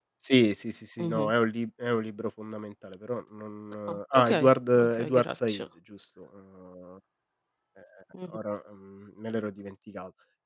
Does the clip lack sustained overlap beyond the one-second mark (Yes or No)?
No